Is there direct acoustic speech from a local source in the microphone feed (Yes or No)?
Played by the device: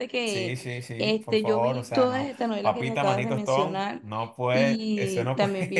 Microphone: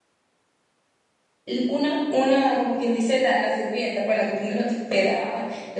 Yes